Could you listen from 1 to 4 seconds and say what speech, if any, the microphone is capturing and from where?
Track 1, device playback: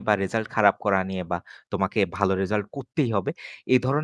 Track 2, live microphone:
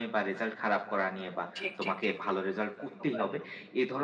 both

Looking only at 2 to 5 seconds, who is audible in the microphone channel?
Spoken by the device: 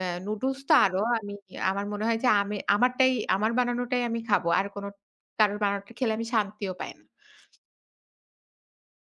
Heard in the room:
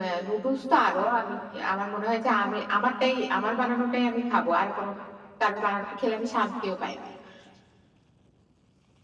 echo only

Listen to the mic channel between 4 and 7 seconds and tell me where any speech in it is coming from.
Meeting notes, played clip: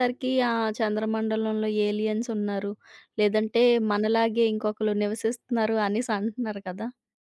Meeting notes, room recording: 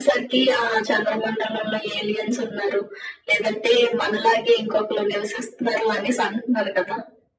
echo only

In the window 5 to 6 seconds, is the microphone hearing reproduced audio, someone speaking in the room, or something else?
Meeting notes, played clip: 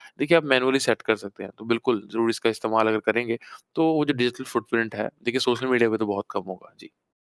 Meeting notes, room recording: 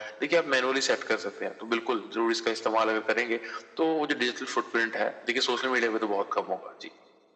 echo only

